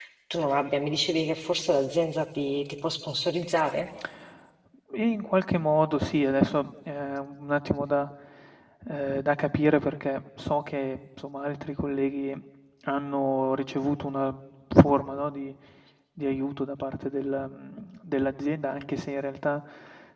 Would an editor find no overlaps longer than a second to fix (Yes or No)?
Yes